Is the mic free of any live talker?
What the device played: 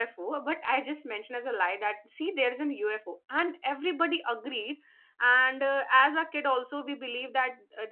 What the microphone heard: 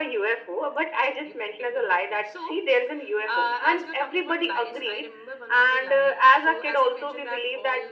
No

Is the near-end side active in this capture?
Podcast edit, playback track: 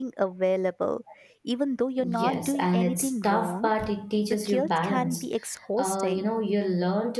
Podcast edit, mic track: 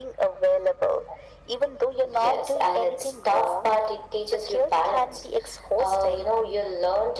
No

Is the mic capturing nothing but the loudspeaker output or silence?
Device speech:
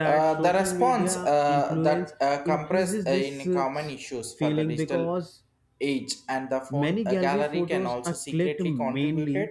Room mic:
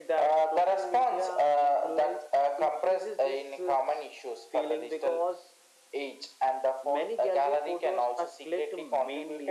Yes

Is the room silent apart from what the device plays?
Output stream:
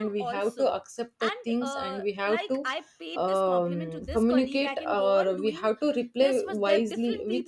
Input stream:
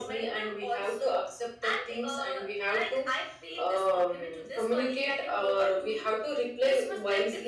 Yes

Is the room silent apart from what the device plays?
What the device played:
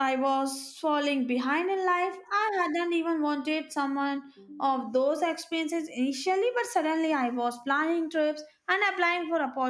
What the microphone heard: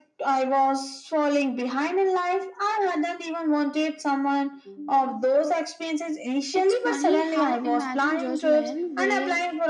No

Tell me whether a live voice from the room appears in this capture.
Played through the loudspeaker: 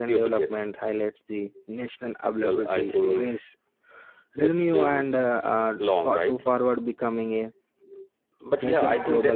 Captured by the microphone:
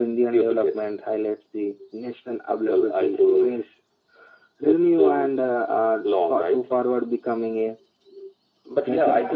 No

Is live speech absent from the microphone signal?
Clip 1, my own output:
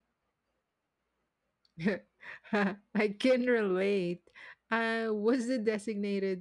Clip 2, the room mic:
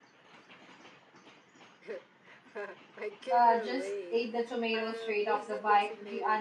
No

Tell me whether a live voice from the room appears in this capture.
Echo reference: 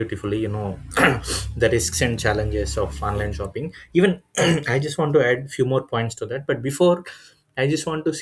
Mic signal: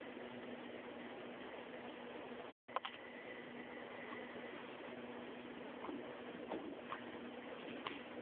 No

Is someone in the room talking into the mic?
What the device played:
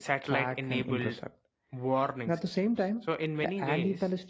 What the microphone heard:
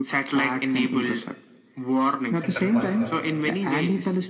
Yes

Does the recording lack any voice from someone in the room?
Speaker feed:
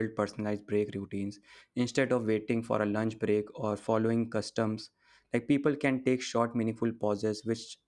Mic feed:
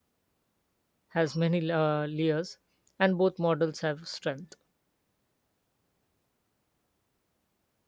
No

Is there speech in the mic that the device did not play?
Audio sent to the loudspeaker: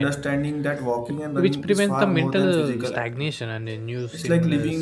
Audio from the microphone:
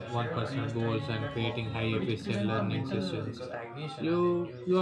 Yes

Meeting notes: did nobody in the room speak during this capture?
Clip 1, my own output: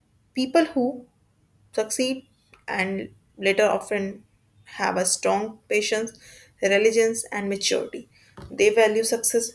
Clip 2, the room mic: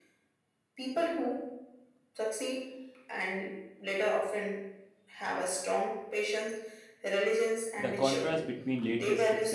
No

